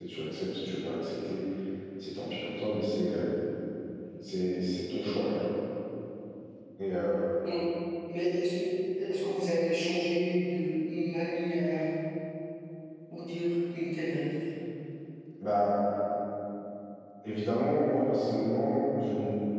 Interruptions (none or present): none